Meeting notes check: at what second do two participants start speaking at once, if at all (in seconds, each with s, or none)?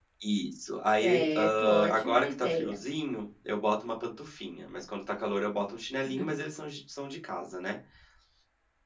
1.0 s